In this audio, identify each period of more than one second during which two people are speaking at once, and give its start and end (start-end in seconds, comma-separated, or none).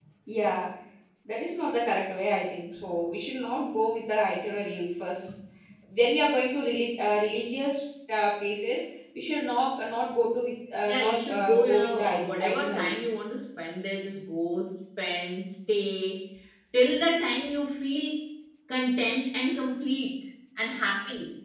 10.9-12.9